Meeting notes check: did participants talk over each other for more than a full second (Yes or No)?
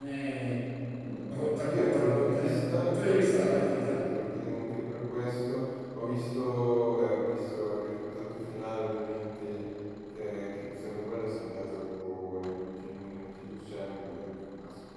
Yes